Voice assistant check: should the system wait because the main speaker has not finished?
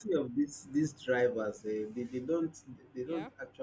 Yes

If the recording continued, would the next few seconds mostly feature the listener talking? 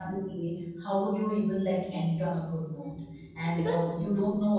No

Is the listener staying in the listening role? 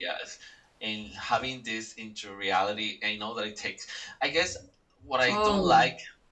Yes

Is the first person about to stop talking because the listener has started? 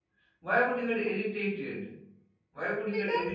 No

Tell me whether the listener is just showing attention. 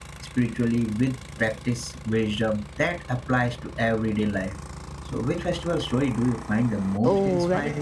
No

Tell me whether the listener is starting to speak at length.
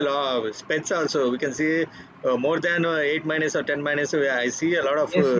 Yes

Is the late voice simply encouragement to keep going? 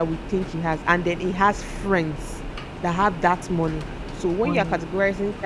Yes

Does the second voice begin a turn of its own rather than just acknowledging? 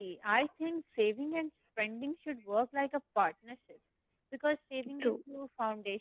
No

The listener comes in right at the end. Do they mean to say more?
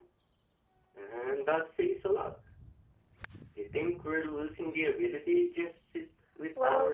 Yes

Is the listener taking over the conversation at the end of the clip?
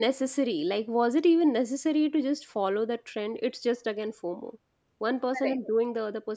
No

